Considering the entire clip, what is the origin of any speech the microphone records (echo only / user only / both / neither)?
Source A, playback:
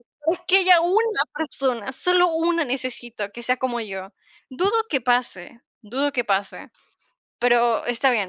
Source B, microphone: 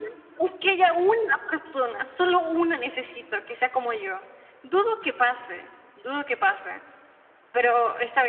echo only